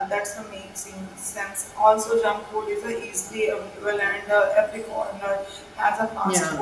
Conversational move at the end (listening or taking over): listening